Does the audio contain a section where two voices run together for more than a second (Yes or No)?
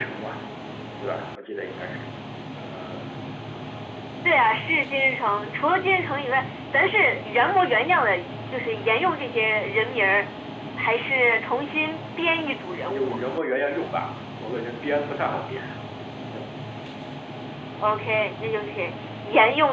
No